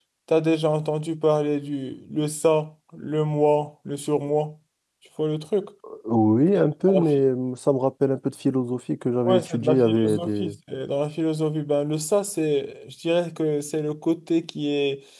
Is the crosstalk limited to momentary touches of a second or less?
No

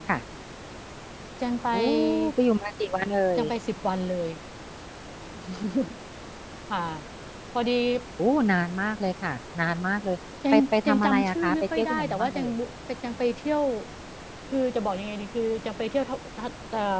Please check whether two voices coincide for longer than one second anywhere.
Yes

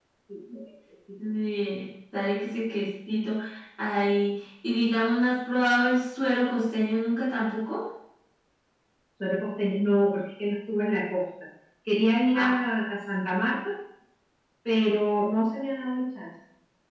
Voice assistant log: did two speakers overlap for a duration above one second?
No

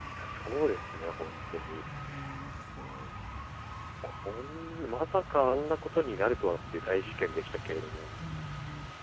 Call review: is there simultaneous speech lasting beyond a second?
No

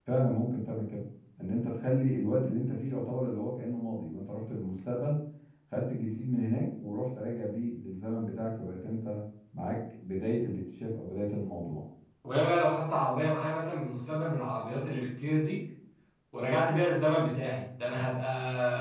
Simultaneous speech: No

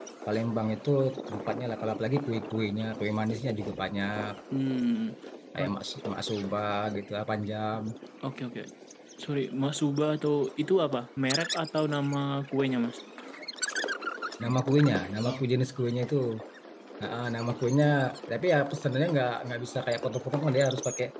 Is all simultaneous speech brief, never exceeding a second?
Yes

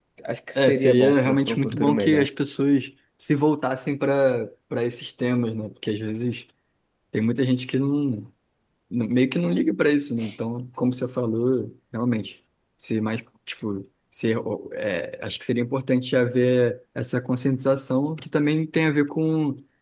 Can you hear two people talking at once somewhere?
Yes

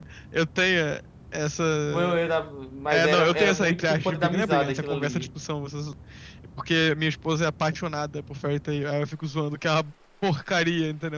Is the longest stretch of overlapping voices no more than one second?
No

